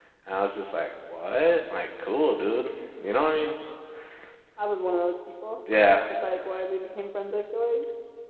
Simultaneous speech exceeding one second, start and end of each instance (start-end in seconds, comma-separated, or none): none